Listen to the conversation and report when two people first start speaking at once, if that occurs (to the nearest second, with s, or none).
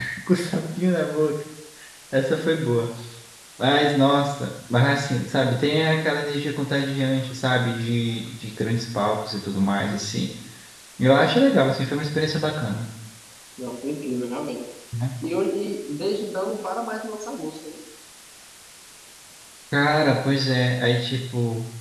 none